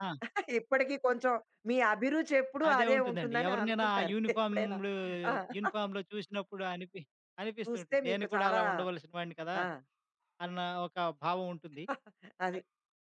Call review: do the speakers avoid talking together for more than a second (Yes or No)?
No